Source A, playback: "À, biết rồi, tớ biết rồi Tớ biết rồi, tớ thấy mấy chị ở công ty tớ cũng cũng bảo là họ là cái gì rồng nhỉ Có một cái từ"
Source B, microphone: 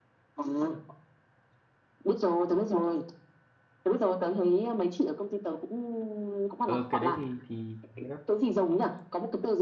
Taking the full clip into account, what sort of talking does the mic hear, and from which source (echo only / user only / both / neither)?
both